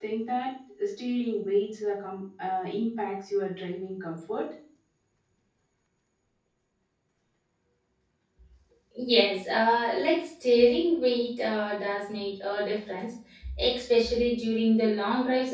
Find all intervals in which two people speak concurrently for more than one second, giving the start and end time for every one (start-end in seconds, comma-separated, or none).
none